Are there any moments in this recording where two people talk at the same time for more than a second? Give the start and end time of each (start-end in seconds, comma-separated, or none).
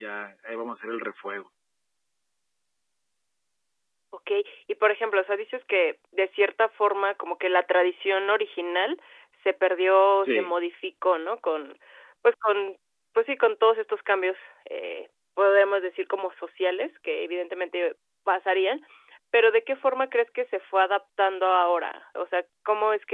none